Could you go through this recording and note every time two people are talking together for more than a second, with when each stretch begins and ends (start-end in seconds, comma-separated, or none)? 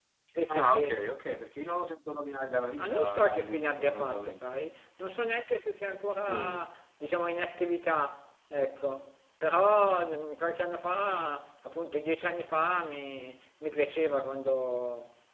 2.8-4.4